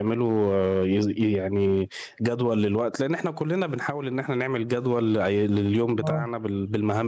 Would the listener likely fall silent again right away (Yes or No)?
Yes